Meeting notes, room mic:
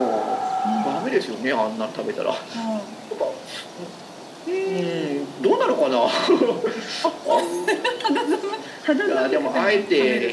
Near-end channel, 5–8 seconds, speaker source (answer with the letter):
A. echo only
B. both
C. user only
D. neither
A